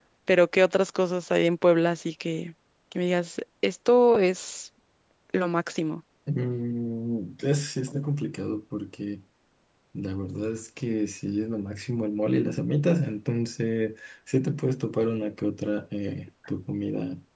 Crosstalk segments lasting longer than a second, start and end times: none

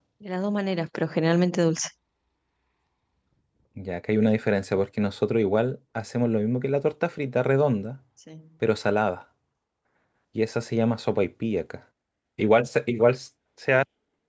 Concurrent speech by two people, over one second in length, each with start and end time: none

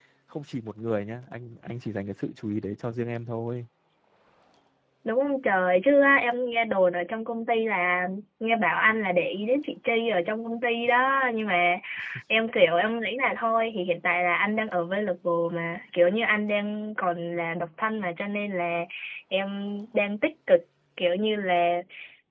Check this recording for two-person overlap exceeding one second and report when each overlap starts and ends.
none

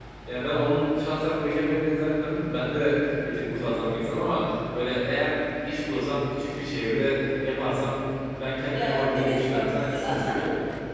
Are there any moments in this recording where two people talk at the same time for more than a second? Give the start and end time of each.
8.7-10.4

